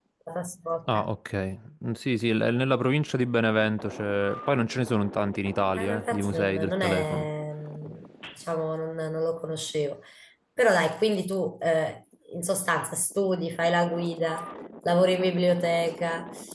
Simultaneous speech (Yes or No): Yes